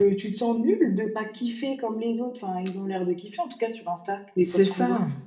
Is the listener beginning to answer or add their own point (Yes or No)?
Yes